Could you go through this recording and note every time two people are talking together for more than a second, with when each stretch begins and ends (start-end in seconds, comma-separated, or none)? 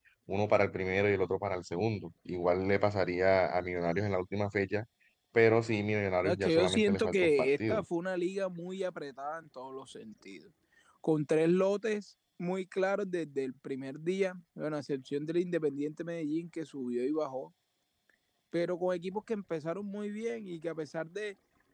6.2-7.8